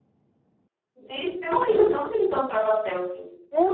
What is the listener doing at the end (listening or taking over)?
taking over